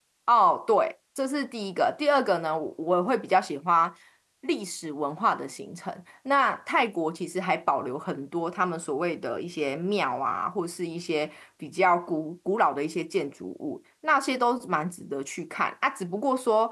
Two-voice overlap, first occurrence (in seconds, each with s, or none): none